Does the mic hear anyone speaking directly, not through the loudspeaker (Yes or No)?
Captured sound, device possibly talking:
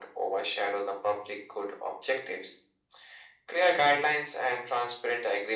No